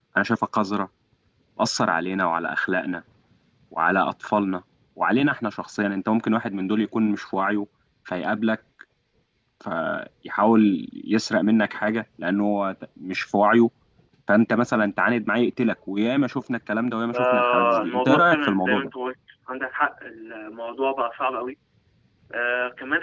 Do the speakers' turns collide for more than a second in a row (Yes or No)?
Yes